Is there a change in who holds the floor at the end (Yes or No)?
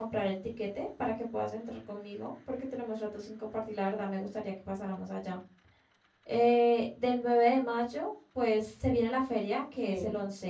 No